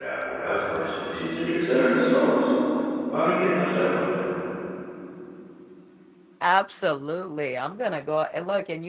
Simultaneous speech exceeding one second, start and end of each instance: none

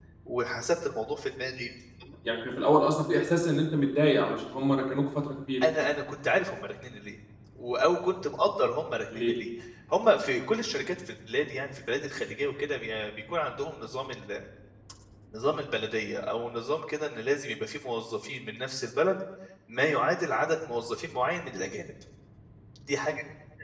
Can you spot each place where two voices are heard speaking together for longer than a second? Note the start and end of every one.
none

